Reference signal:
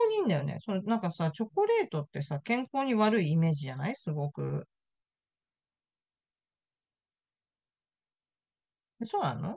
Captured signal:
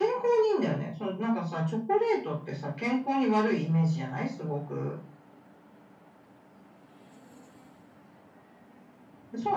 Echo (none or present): present